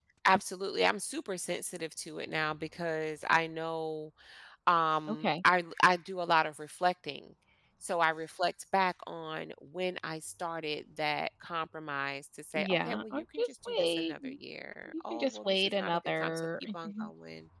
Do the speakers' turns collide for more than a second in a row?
Yes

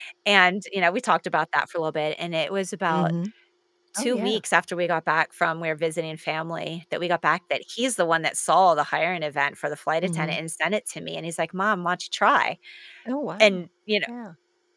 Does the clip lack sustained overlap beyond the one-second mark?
Yes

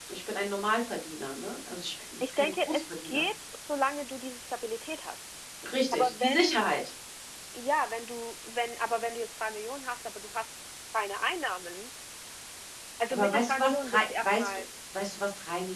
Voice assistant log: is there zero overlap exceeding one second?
No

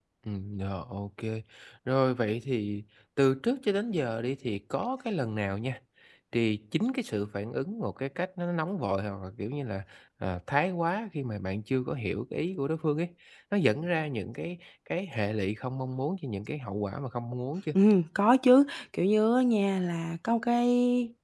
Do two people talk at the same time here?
No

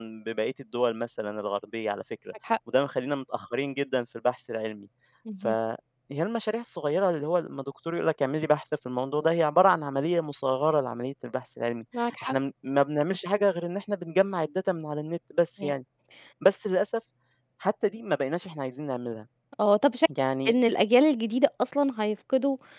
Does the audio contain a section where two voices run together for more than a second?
No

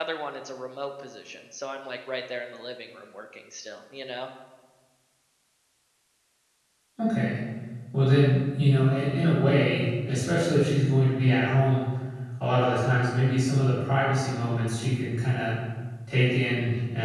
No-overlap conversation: Yes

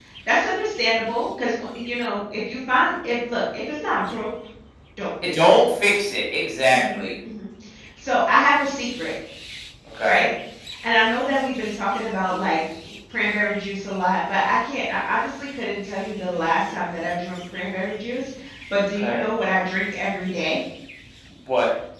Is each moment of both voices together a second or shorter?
Yes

